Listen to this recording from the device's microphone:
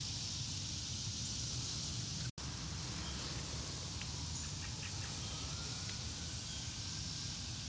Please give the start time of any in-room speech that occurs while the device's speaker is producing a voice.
none

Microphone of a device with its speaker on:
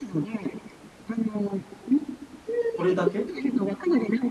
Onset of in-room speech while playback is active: 2.8 s

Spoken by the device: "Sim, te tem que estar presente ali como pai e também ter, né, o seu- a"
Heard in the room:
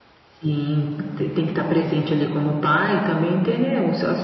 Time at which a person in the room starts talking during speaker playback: none

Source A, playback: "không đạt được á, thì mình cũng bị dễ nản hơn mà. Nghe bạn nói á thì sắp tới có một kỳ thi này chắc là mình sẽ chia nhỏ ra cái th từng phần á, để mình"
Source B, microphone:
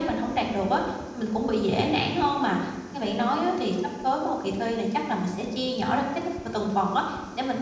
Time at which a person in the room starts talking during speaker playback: none

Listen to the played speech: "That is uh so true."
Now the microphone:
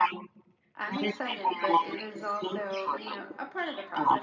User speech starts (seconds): 0.8 s

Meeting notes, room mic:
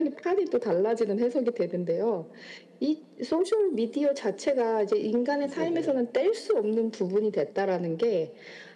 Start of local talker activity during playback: 5.4 s

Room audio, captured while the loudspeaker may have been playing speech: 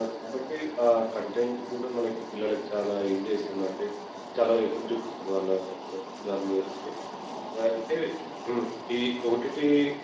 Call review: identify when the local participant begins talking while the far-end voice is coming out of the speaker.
none

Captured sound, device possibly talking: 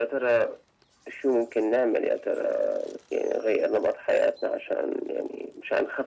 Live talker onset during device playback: none

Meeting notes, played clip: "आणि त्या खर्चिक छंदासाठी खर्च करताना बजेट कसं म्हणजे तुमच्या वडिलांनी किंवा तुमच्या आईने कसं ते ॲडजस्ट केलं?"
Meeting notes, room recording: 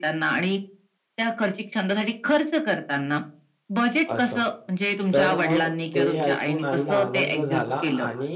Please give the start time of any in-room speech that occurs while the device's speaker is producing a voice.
4.1 s

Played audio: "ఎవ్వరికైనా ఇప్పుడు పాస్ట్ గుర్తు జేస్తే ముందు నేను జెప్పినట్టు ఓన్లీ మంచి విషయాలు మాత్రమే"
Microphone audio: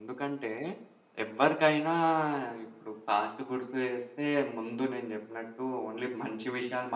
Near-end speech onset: none

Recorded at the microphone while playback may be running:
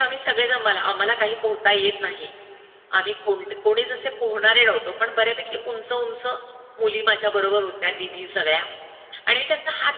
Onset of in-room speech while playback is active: none

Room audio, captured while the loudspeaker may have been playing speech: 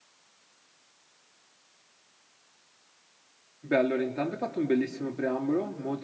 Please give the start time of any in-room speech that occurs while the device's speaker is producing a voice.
3.6 s

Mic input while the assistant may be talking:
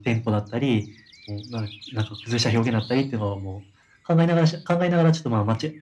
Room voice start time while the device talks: none

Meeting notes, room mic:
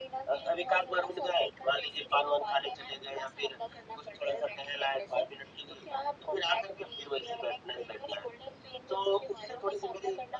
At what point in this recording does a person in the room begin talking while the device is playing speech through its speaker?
none

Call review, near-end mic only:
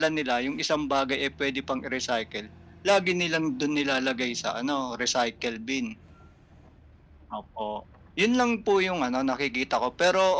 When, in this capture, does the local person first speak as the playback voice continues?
none

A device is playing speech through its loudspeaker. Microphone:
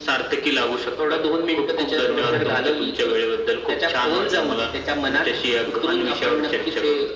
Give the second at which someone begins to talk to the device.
2.2 s

